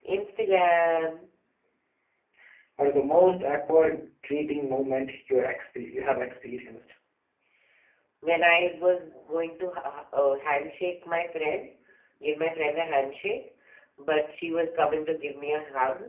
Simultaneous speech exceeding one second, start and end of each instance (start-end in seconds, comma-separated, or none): none